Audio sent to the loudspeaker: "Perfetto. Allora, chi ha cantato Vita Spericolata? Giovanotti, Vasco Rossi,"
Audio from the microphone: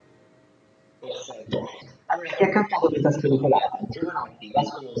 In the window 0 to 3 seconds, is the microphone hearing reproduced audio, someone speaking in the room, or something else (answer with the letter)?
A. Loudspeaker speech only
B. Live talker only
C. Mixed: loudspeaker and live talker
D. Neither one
A